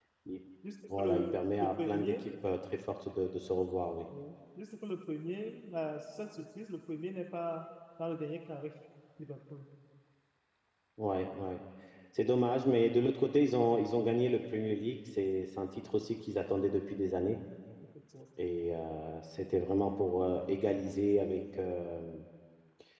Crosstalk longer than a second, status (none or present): present